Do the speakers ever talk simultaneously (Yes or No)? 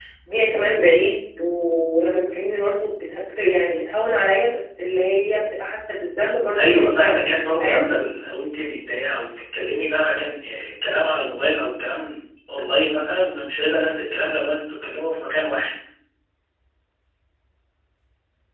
Yes